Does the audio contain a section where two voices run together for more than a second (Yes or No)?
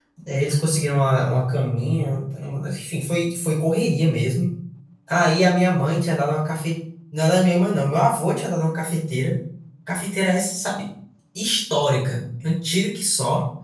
No